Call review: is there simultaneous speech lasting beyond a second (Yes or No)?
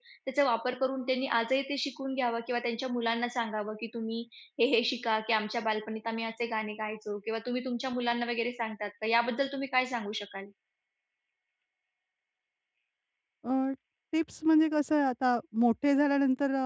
No